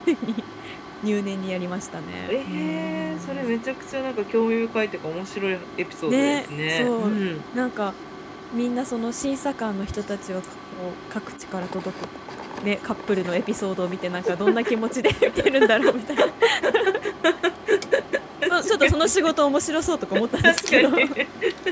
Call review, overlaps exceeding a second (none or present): present